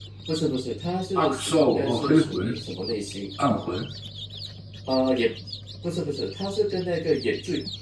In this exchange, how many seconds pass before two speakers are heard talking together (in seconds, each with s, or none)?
1.1 s